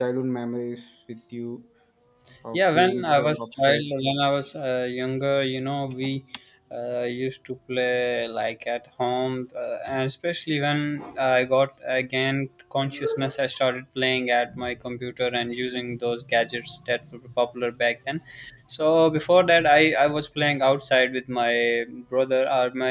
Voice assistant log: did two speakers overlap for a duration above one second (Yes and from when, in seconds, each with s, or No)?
Yes, from 2.5 s